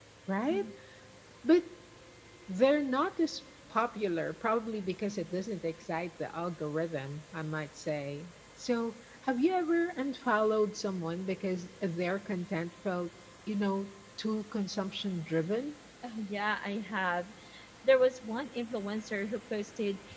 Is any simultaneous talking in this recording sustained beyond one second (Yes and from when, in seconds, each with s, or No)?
No